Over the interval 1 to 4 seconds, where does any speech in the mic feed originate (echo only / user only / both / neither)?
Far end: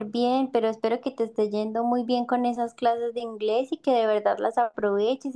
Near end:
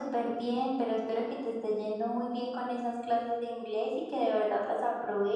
echo only